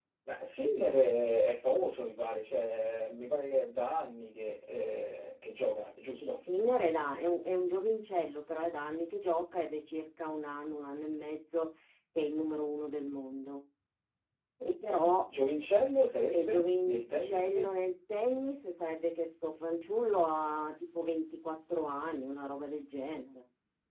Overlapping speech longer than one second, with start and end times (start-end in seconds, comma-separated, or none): 16.3-17.6